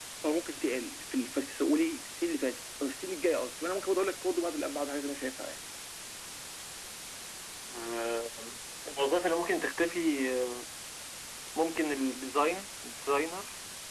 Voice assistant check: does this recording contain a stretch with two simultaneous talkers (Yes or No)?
No